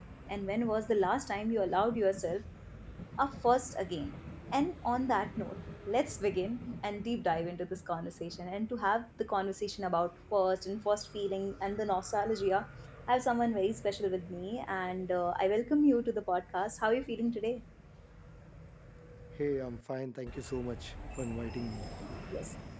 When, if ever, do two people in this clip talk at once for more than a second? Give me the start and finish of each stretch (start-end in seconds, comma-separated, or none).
none